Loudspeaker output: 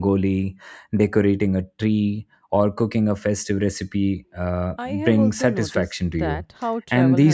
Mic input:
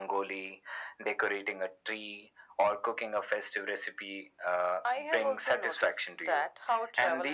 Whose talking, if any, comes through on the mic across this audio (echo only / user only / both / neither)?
echo only